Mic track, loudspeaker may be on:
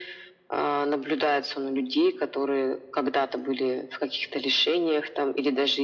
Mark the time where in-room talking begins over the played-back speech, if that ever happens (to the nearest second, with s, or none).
none